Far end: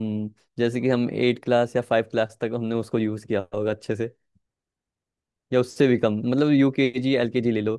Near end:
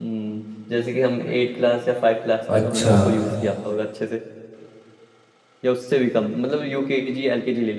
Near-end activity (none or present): present